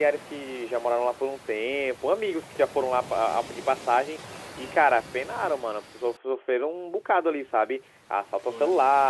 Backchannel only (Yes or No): Yes